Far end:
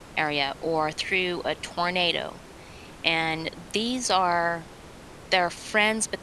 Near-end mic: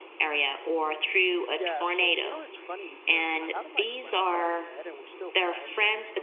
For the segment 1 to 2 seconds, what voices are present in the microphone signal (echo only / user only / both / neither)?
both